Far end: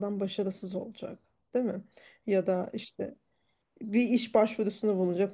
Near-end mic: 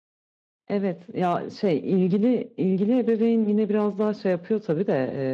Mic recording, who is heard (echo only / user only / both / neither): user only